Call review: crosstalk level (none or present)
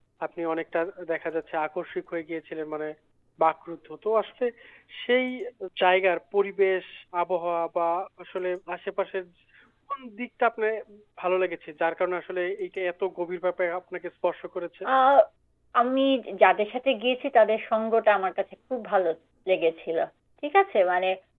none